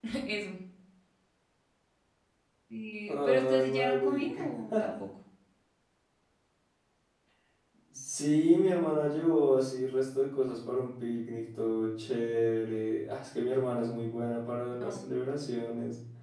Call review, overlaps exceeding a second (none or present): present